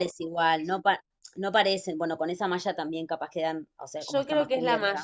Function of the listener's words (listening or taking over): taking over